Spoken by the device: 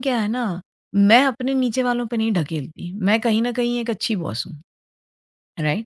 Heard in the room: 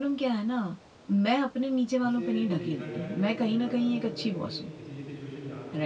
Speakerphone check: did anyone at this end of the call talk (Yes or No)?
Yes